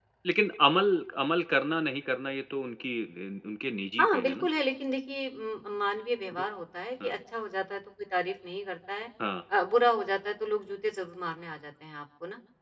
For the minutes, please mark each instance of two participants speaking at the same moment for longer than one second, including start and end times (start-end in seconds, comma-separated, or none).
none